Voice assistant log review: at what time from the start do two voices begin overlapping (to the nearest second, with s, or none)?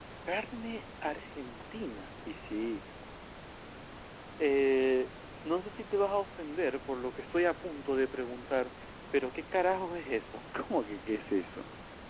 none